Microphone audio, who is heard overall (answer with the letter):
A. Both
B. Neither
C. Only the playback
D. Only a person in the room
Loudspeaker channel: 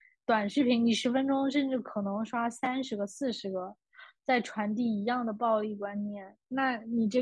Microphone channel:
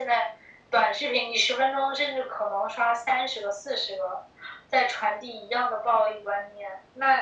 C